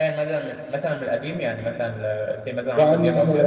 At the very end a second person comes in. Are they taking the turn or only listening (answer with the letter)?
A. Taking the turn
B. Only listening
A